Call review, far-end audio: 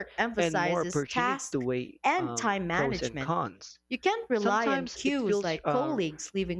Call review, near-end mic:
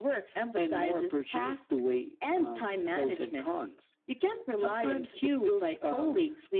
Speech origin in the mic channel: echo only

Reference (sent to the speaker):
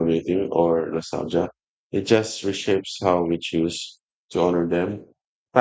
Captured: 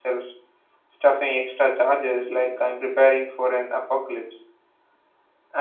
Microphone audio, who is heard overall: user only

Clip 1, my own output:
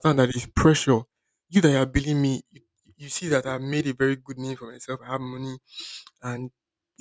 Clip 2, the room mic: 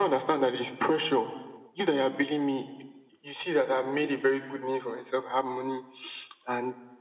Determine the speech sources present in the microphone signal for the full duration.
echo only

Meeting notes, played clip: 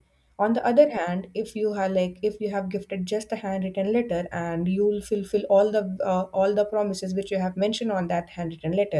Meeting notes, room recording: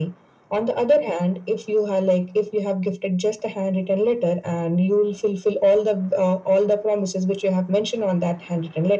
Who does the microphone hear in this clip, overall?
echo only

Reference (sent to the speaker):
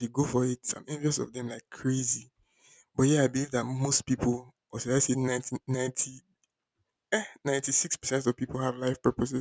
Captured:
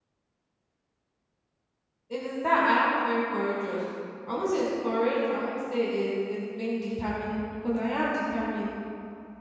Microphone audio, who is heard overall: user only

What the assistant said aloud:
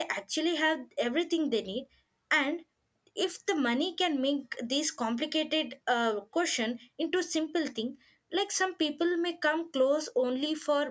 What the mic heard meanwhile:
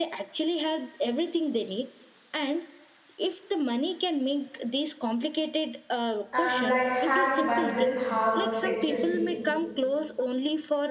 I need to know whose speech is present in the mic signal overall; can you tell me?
both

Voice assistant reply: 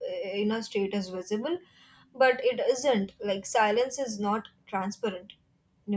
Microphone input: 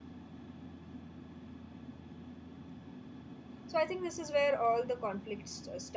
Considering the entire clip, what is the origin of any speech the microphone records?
user only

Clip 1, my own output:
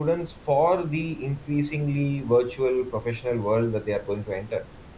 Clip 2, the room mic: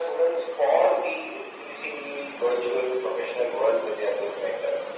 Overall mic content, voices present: echo only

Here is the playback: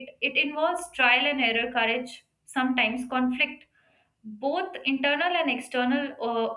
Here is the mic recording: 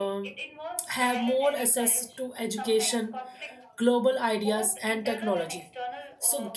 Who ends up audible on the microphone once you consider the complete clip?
both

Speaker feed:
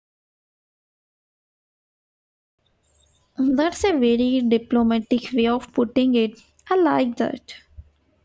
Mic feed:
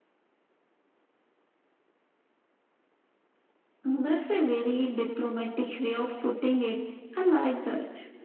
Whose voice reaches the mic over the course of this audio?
echo only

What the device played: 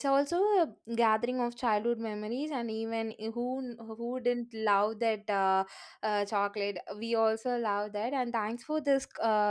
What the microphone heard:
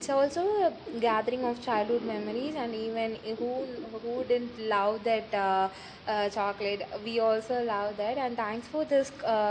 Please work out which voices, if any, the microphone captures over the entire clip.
echo only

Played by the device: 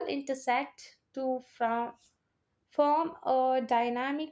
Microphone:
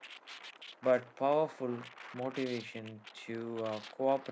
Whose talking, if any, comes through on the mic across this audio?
user only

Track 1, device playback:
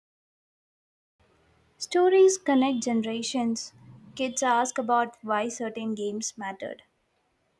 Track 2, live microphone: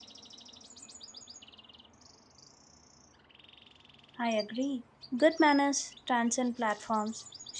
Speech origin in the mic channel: user only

